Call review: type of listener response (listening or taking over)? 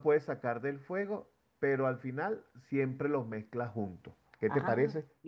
taking over